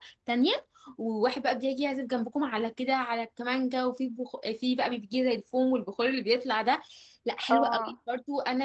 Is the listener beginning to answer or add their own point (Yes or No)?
No